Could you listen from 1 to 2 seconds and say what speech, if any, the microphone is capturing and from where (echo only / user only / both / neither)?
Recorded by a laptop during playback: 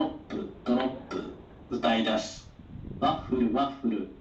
echo only